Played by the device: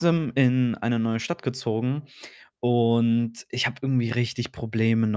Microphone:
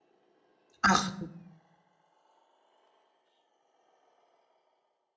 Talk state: user only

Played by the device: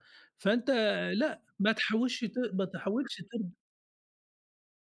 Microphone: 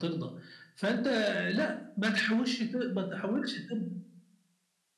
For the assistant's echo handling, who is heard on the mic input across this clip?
echo only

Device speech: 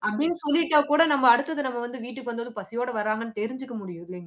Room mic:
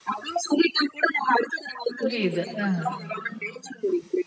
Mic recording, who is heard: both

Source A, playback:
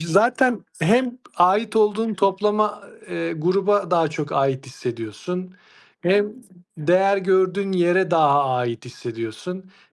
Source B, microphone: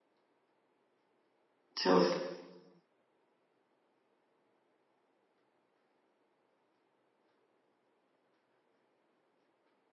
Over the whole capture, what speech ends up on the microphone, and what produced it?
user only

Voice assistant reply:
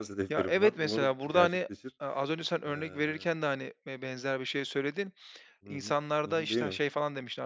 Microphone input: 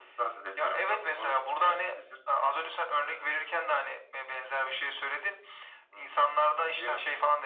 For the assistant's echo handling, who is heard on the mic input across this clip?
echo only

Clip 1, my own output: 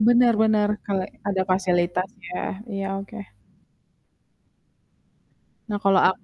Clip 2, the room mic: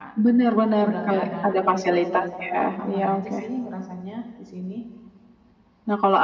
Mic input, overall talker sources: both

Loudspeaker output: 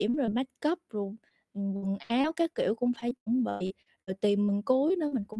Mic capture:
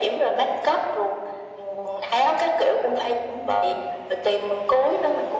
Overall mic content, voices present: echo only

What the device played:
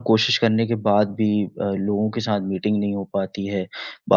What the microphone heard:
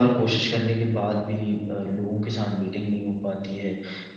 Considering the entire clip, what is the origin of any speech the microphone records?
echo only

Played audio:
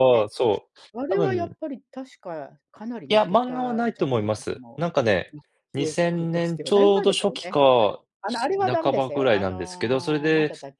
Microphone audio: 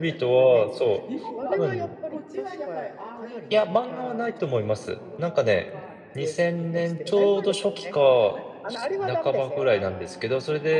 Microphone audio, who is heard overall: both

